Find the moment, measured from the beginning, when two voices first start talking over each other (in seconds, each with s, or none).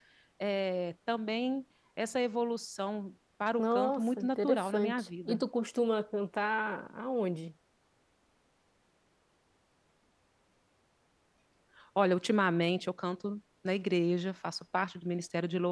3.6 s